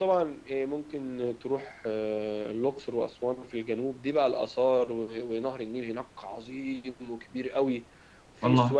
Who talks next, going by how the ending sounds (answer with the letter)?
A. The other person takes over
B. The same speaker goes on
B